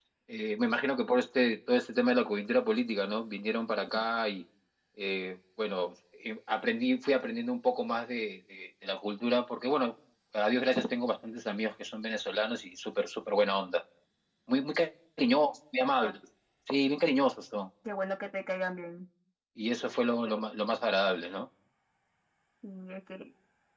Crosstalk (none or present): none